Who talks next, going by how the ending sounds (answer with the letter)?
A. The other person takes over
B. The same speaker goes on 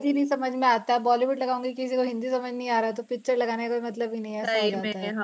A